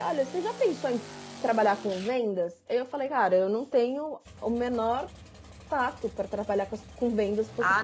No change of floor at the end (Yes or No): No